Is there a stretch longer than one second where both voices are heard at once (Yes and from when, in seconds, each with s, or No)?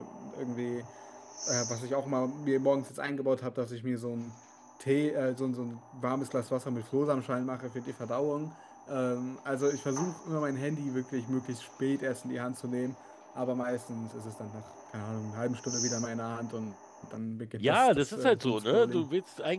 Yes, from 17.6 s